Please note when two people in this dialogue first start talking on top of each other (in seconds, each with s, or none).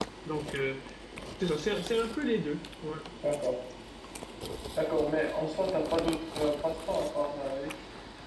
none